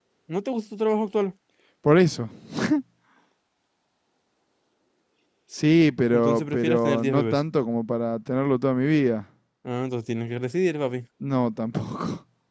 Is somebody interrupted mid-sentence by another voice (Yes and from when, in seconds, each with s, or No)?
Yes, from 6.1 s